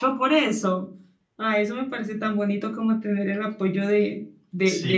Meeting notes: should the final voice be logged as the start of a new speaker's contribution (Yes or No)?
Yes